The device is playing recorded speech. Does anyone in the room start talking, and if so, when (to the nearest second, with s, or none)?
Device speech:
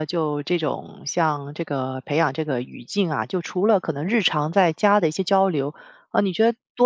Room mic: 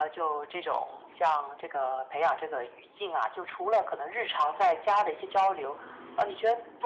none